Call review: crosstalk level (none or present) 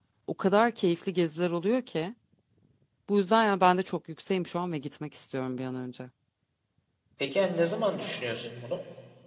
none